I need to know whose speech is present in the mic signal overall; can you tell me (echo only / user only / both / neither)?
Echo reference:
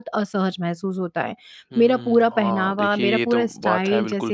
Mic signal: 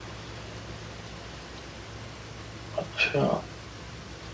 user only